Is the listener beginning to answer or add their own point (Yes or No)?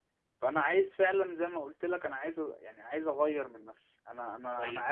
Yes